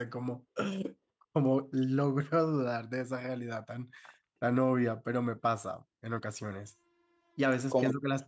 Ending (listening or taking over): listening